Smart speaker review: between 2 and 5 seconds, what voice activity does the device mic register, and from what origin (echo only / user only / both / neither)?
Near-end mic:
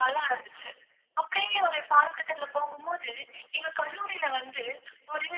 echo only